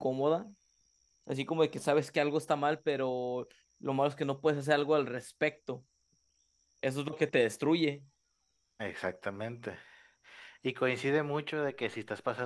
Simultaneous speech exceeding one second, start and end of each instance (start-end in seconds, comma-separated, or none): none